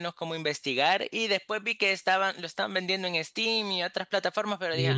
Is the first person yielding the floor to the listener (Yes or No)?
Yes